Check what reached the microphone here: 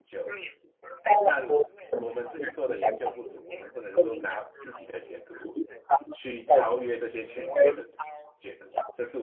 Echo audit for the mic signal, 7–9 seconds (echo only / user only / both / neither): both